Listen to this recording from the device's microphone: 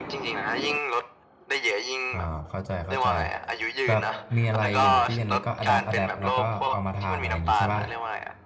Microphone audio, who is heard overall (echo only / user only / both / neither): both